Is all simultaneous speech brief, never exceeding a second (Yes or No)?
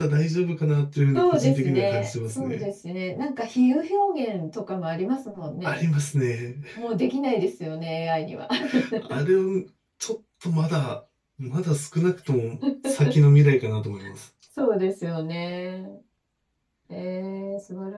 No